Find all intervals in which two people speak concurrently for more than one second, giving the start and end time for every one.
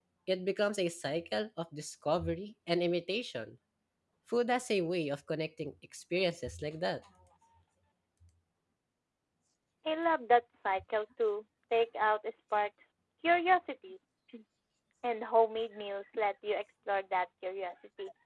none

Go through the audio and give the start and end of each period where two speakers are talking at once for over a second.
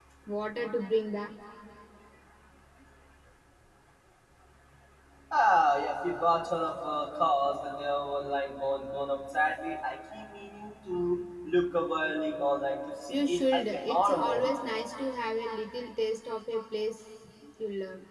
13.1-14.4

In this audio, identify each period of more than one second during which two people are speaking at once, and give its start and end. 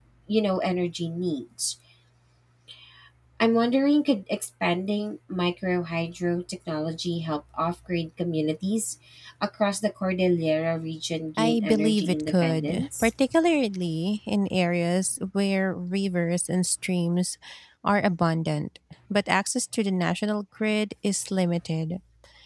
11.4-13.1

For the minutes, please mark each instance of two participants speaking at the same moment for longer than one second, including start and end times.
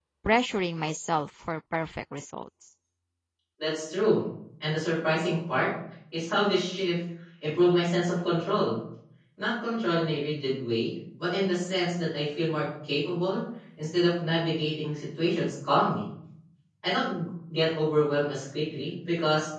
none

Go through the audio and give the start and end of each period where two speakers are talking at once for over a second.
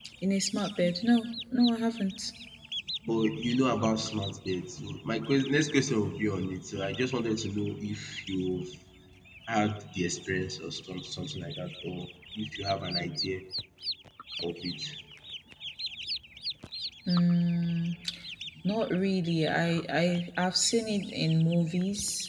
none

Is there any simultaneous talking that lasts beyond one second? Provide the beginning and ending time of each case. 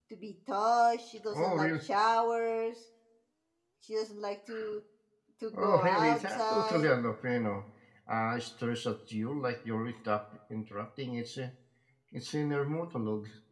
5.6-6.9

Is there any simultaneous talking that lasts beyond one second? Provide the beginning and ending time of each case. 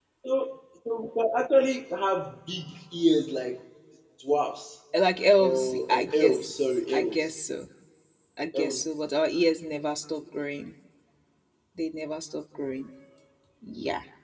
5.4-7.3

